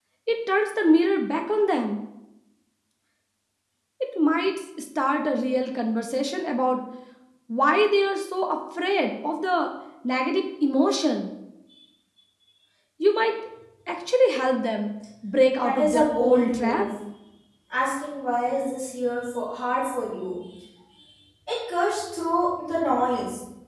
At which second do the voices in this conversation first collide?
15.6 s

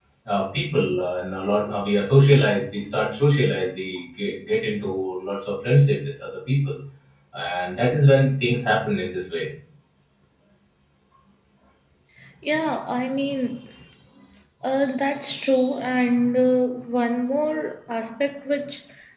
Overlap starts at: none

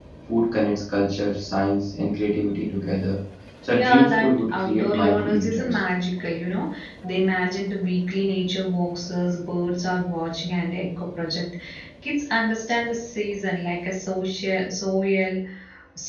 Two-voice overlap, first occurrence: 3.7 s

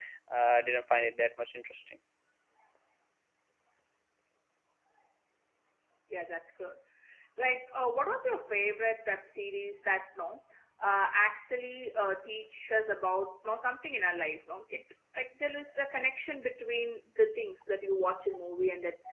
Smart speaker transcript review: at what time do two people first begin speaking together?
none

